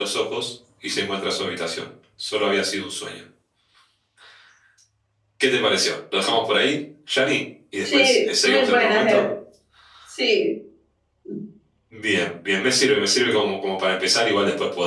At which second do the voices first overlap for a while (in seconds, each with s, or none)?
7.8 s